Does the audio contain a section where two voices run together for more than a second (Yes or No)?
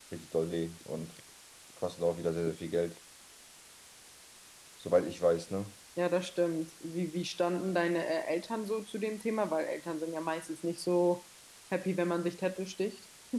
No